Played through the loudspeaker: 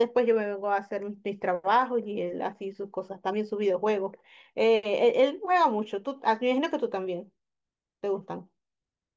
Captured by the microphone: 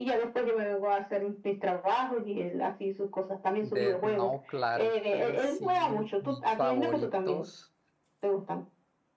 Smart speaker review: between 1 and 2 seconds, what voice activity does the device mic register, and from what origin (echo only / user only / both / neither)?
echo only